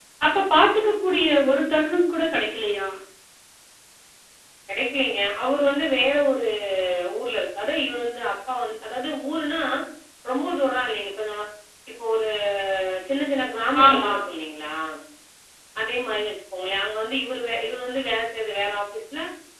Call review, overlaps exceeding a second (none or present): none